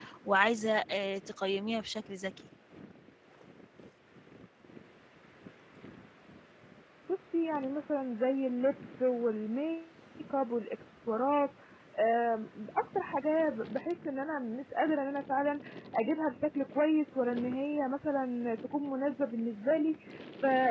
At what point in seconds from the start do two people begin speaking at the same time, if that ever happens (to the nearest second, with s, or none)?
none